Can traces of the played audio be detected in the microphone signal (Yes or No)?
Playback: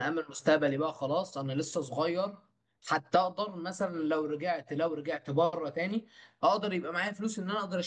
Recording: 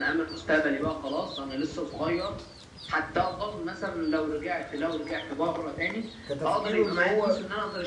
Yes